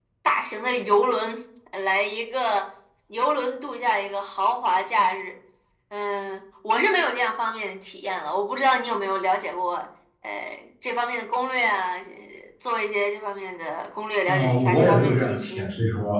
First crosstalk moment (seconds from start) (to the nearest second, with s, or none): 14 s